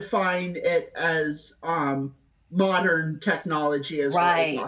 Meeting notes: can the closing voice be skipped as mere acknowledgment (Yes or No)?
No